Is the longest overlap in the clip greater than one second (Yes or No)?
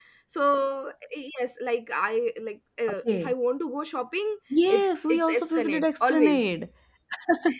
Yes